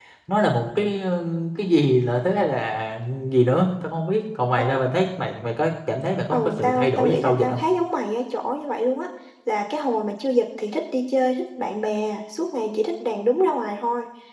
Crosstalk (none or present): present